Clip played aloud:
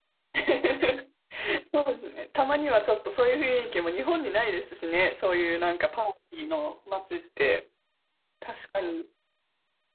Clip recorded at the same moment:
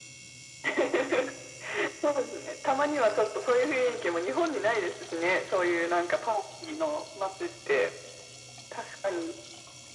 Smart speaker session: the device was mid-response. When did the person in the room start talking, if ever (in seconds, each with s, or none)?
none